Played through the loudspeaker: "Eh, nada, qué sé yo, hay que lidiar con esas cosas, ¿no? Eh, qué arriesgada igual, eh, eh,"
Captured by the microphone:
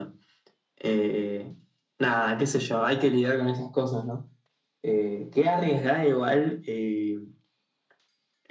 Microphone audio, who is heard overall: echo only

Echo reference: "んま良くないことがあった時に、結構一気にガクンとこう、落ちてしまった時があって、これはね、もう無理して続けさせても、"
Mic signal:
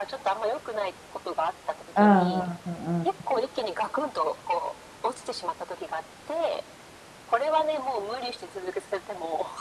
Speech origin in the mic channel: both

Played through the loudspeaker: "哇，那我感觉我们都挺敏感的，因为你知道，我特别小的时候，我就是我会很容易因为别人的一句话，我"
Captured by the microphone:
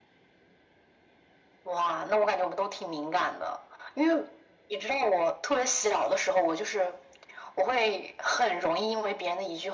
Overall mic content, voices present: echo only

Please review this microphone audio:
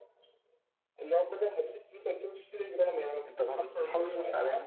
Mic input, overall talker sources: both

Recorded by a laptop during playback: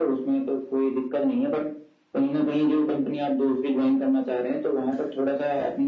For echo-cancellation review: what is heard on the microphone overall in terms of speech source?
echo only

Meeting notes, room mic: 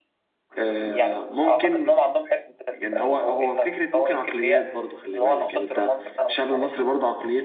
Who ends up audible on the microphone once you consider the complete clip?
both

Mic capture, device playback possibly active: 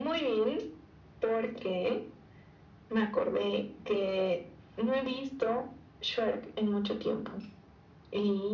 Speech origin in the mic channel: echo only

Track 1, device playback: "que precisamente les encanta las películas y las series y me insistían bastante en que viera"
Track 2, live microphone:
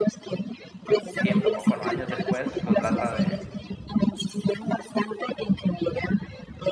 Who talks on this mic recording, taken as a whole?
both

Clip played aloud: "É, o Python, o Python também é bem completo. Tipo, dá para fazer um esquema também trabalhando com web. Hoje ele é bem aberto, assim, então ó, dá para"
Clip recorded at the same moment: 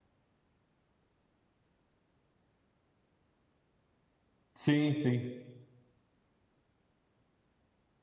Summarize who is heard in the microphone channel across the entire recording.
user only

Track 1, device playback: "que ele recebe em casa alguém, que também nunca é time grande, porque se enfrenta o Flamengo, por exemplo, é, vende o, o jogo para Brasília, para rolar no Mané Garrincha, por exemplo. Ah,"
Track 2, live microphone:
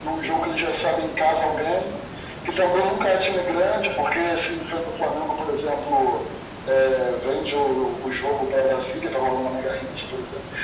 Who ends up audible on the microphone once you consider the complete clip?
echo only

